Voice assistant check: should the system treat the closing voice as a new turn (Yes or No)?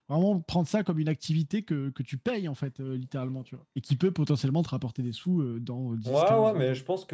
Yes